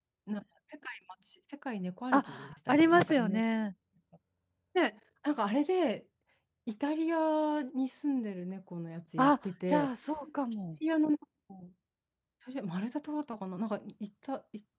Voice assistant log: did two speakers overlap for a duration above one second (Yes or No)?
Yes